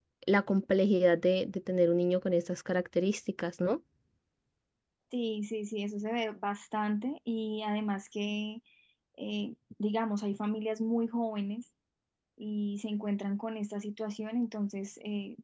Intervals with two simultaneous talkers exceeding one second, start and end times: none

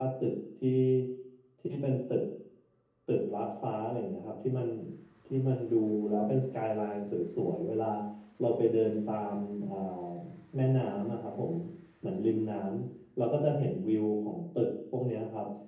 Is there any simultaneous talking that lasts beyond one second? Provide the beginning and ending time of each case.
none

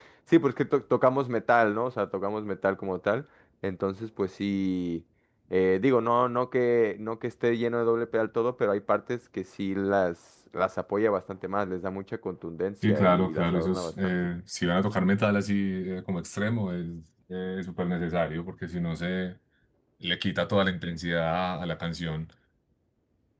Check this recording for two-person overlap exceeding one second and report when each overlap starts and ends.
12.9-14.2

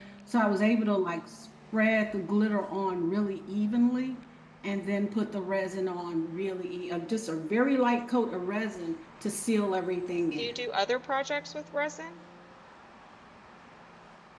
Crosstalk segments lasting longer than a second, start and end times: none

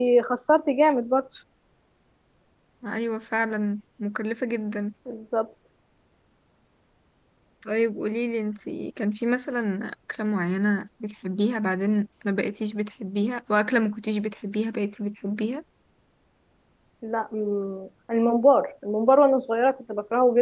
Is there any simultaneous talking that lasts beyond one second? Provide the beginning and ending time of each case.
none

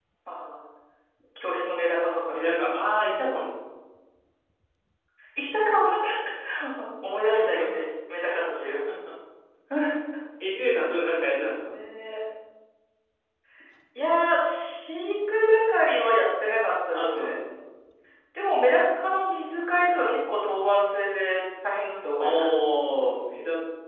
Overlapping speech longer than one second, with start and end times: none

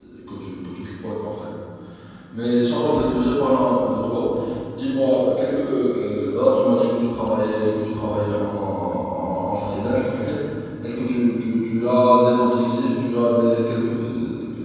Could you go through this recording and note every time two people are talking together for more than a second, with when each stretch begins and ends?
none

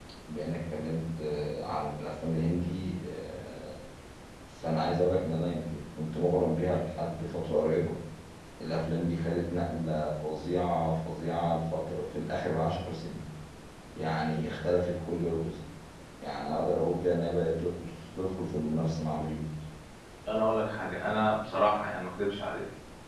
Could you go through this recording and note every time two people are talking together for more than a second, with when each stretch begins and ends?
none

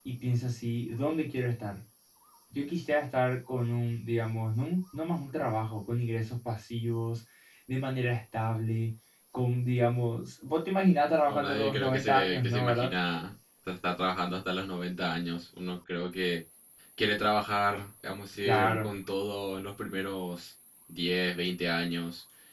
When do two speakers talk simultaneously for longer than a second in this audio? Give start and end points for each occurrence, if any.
11.2-12.9

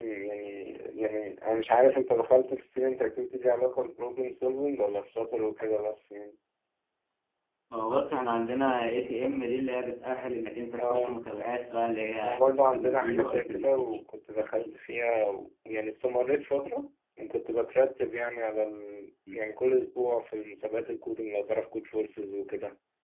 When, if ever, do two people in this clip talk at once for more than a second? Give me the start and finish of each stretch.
12.2-14.0

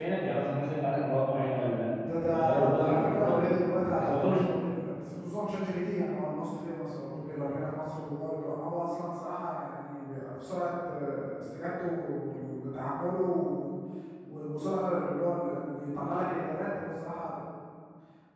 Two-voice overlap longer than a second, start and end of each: 2.3-3.5

